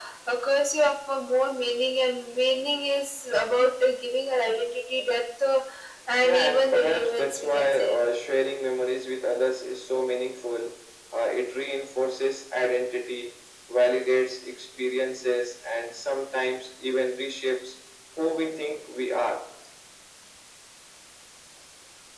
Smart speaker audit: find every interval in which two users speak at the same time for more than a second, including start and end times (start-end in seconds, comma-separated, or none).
6.2-8.0